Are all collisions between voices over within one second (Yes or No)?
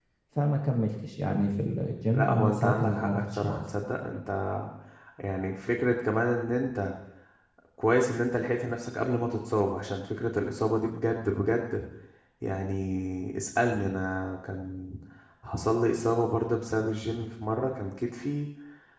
No